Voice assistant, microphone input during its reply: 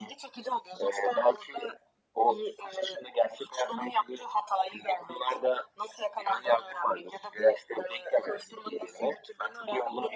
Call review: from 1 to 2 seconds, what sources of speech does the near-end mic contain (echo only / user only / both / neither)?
echo only